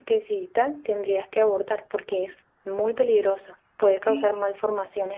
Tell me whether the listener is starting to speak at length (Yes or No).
No